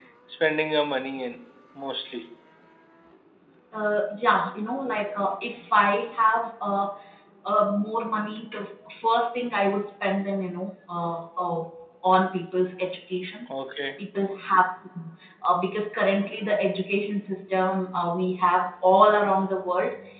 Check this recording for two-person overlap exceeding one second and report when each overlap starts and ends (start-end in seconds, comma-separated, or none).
none